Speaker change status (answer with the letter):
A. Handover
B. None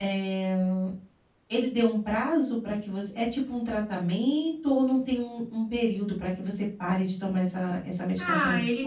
A